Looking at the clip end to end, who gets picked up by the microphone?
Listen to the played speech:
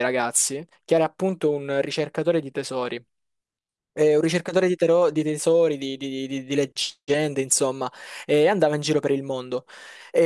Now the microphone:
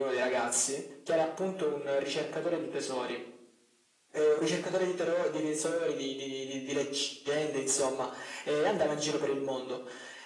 echo only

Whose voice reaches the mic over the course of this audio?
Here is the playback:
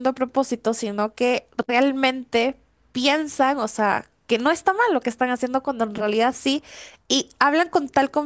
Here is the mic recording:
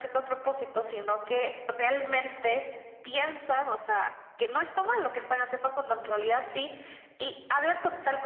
echo only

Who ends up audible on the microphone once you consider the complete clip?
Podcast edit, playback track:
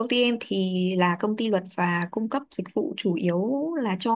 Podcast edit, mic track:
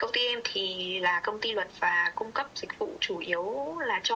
echo only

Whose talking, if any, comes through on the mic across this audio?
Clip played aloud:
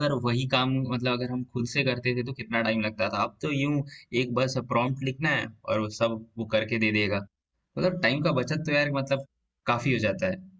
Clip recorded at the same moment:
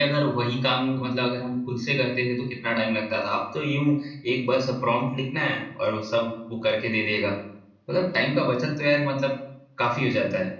echo only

